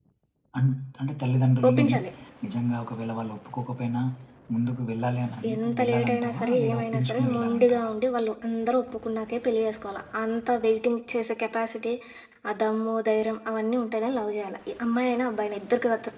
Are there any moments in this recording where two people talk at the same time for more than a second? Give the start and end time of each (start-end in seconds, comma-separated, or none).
5.5-7.9